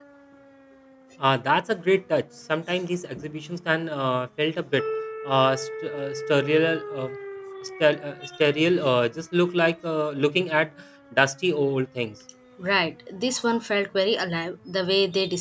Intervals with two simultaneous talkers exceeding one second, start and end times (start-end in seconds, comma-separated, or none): none